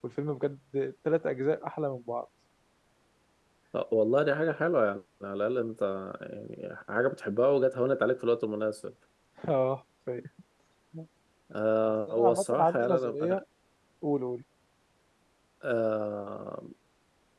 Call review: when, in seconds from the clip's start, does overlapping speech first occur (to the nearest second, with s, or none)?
12 s